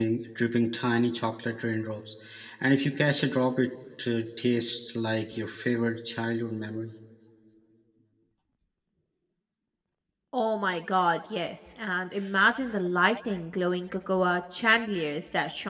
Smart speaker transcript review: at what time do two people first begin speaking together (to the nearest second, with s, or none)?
none